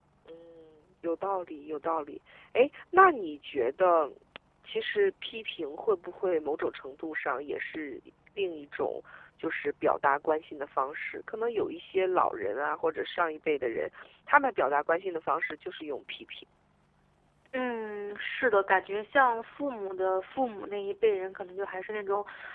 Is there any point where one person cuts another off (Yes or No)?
No